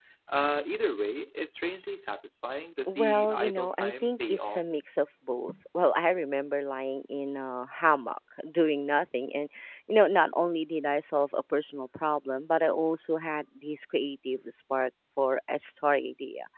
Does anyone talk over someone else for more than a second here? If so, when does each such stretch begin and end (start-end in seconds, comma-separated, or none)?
2.9-4.6